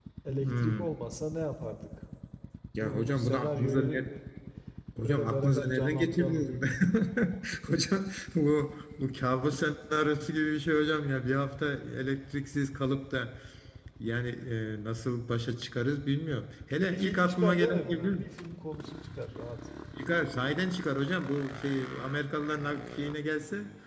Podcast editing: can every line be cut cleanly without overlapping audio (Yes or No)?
No